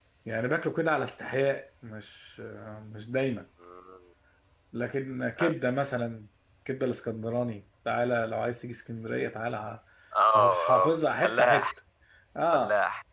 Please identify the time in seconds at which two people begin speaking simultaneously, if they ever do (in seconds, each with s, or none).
10.3 s